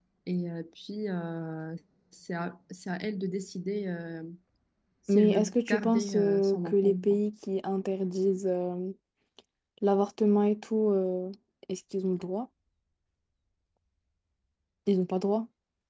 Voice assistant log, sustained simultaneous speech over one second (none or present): present